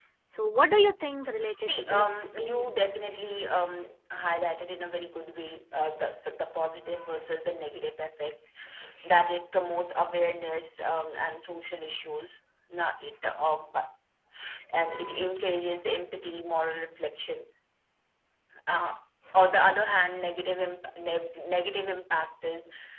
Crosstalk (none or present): present